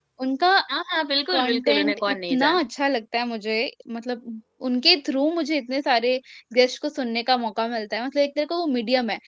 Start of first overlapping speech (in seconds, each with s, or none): 1.3 s